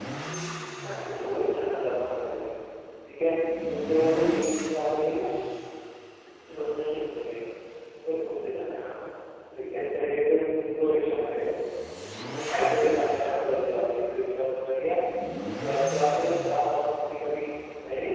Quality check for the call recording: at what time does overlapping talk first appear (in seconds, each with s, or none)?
0.8 s